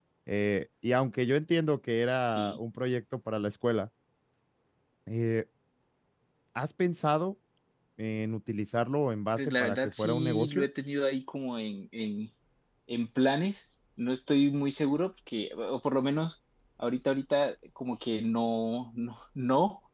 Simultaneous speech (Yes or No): Yes